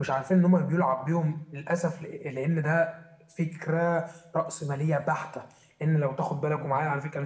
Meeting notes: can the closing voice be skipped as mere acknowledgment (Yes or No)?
Yes